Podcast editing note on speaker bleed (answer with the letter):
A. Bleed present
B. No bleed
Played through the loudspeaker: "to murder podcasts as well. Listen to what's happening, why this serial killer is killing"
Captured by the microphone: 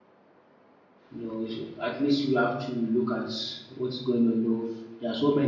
B